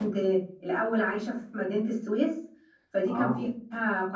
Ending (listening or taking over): listening